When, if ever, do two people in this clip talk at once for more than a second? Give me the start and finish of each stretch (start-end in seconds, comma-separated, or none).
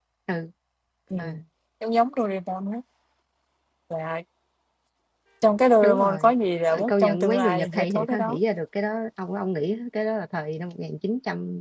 6.7-8.4